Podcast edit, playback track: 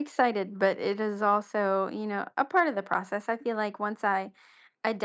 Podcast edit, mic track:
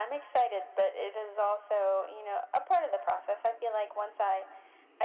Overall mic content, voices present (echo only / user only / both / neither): echo only